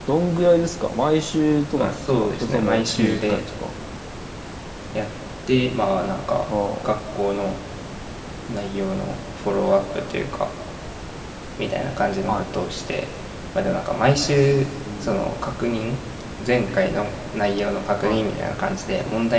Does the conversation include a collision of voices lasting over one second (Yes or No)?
Yes